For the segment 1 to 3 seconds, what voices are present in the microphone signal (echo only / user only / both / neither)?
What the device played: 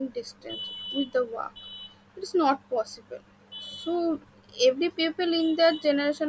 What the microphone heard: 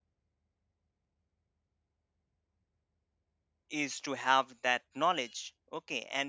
neither